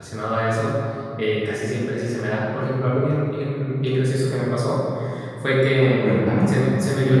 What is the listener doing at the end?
listening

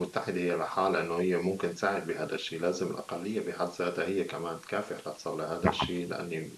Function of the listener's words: listening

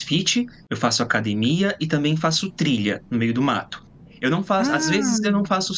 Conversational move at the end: listening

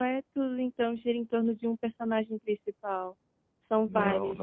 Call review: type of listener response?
taking over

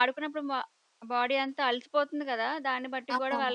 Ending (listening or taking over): listening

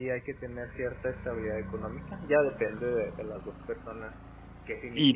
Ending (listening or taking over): taking over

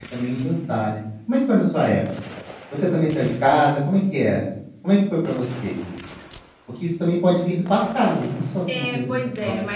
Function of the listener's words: taking over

